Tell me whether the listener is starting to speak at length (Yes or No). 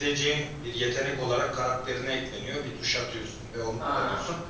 No